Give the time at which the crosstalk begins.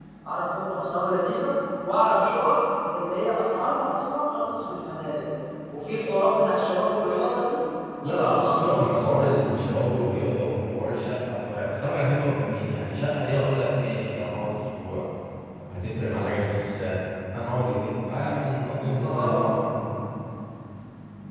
8 s

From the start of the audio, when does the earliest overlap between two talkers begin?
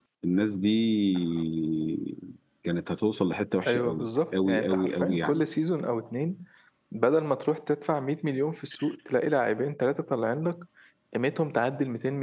4 s

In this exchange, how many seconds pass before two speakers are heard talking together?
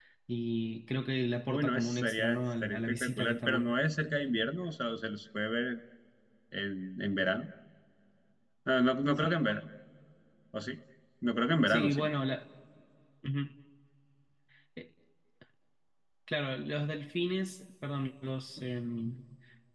1 s

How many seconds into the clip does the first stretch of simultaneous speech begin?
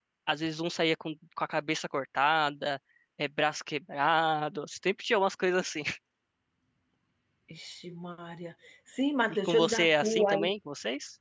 9 s

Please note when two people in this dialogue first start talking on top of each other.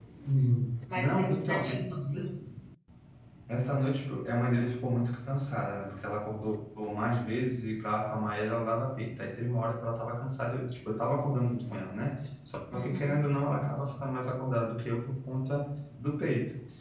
1 s

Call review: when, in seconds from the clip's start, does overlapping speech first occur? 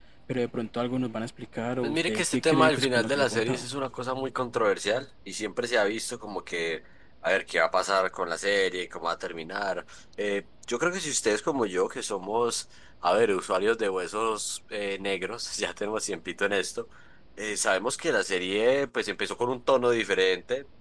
2 s

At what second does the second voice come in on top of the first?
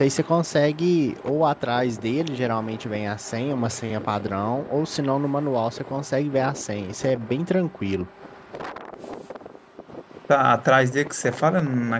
none

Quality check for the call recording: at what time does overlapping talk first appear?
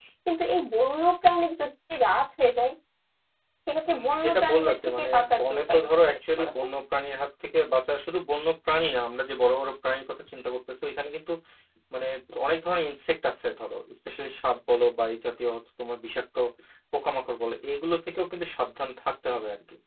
4 s

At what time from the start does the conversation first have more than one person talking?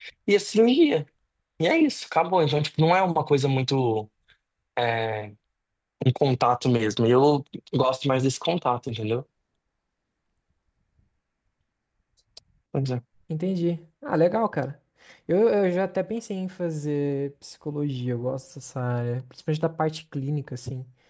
none

